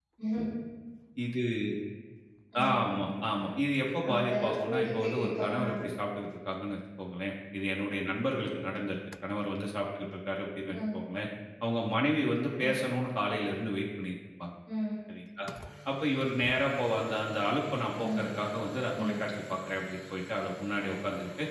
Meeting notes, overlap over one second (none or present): present